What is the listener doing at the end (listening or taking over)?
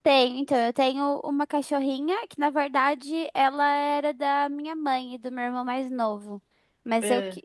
listening